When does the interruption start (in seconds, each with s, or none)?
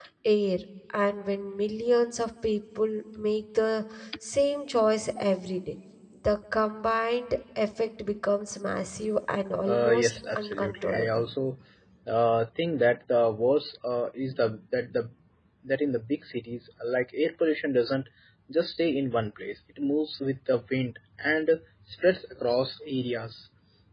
9.7 s